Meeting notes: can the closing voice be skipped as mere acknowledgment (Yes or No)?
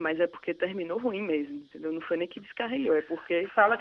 No